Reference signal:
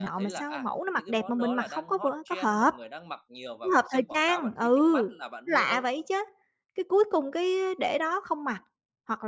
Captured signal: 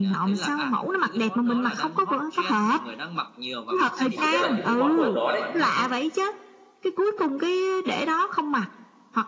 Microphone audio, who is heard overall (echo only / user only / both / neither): both